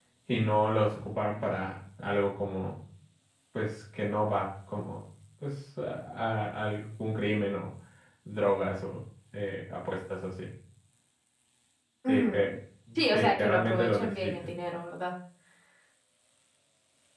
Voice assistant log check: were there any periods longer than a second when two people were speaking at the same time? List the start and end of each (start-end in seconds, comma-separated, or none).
13.1-14.3